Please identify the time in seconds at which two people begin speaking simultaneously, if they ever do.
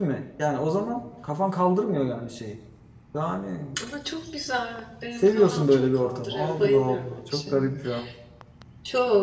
5.2 s

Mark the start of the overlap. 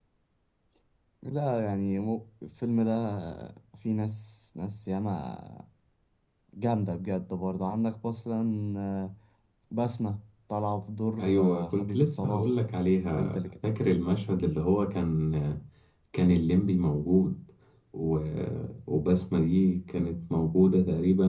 11.2 s

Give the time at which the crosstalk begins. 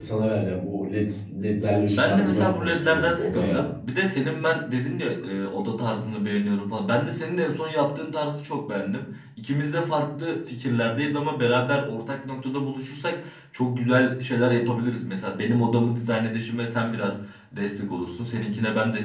2.0 s

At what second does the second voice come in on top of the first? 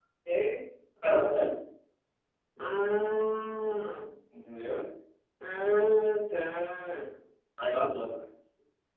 none

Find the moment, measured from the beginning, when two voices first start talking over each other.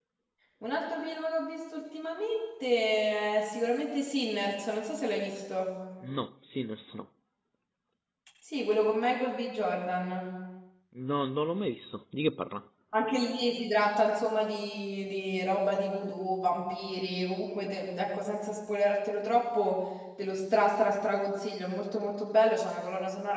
none

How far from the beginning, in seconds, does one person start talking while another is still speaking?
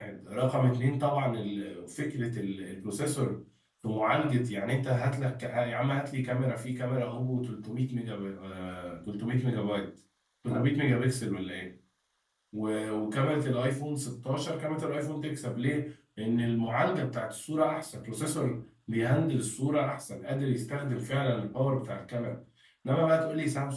none

